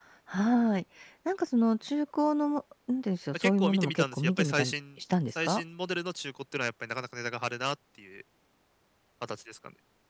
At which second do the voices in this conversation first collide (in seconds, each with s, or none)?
3.3 s